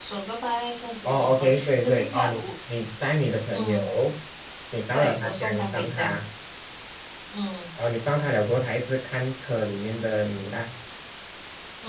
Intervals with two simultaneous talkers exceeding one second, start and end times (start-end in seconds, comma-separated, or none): 1.0-2.4, 4.9-6.2